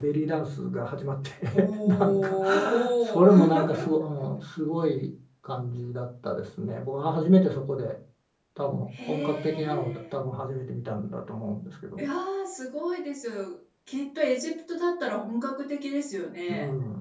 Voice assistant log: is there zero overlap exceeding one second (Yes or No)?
No